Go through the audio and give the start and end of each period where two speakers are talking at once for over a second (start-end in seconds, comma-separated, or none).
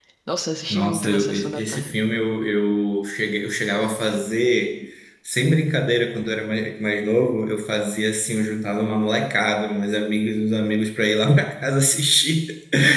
0.7-2.0